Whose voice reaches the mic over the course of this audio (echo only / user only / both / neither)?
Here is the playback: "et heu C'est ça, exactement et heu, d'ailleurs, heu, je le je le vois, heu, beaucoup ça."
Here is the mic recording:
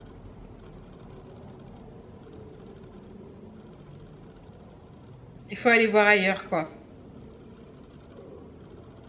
user only